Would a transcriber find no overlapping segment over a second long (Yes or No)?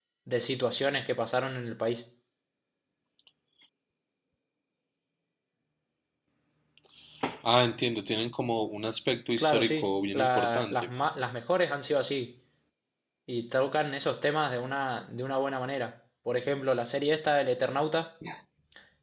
No